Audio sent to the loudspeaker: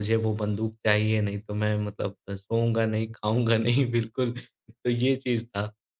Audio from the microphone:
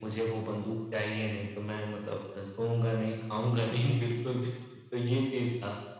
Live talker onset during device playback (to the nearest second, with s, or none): none